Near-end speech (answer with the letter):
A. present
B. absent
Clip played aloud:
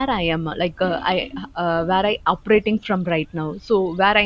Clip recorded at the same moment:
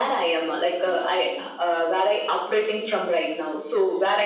B